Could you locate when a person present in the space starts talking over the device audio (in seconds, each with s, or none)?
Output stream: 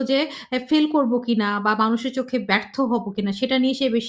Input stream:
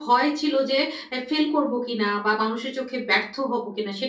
none